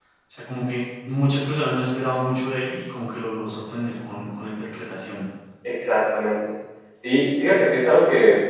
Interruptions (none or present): none